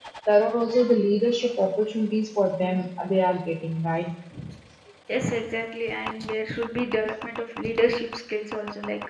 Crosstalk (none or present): none